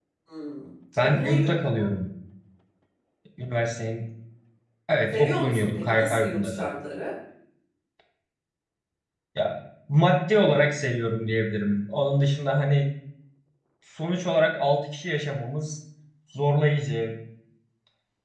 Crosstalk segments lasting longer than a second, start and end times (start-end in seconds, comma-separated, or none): 5.1-6.8